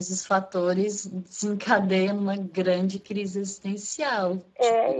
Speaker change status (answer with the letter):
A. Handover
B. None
A